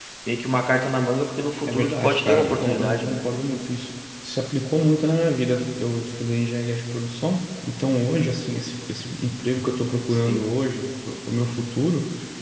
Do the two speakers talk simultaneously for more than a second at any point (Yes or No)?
Yes